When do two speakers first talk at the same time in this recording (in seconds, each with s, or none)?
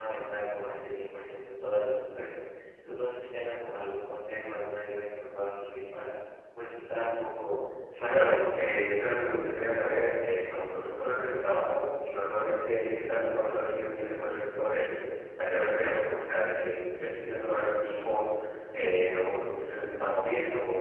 7.9 s